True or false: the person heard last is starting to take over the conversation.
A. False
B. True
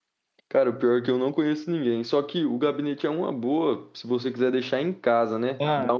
A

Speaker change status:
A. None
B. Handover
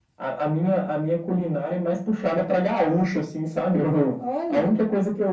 A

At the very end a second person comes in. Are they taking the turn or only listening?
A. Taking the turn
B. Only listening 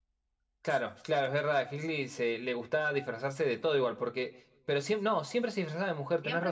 A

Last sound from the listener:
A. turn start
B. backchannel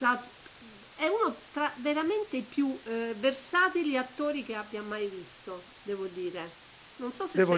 A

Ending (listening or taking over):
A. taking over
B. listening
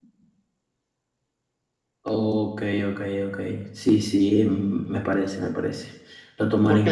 A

